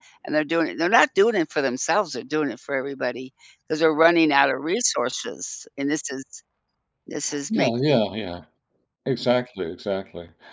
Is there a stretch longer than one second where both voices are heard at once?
No

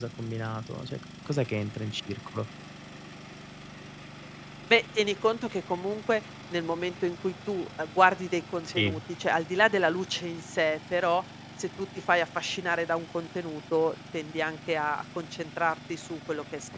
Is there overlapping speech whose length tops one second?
No

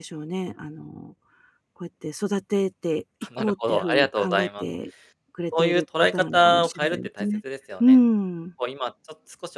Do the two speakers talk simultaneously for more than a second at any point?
Yes, from 3.4 s

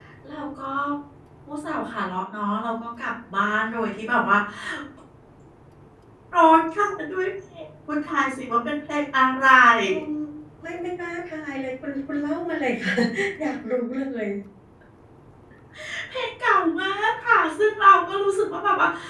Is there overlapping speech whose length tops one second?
No

